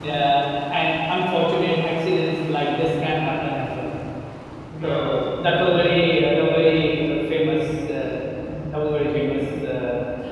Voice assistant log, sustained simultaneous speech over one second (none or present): present